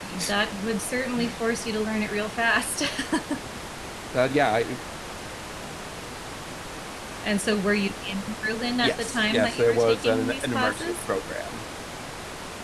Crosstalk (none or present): present